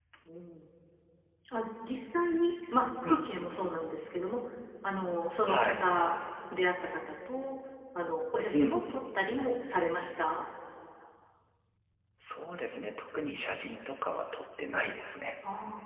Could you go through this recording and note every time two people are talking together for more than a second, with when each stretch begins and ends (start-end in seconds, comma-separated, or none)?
none